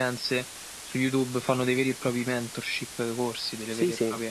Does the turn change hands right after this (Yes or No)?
Yes